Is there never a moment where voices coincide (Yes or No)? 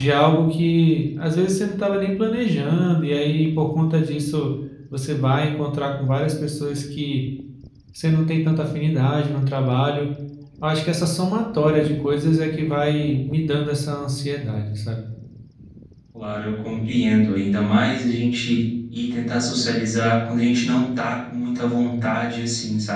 Yes